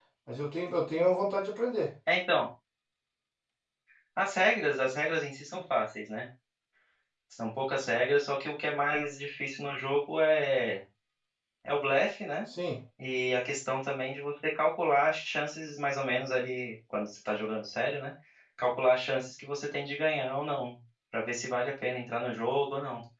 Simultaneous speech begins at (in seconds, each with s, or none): none